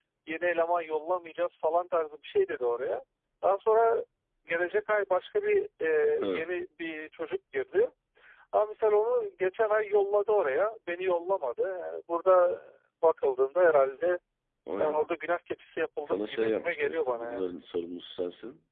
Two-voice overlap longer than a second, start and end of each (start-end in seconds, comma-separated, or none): 16.0-17.5